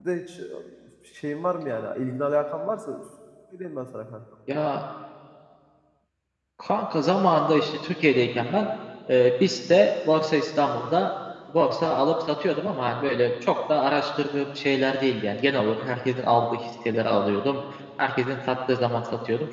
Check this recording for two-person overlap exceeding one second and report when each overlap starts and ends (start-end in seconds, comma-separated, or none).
none